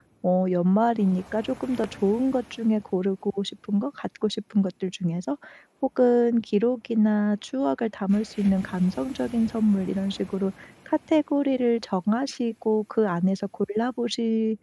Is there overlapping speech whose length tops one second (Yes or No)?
No